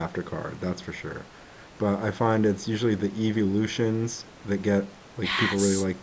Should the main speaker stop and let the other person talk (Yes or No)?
No